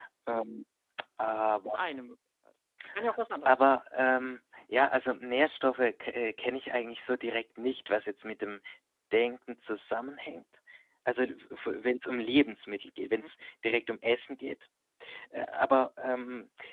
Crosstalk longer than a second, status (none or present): none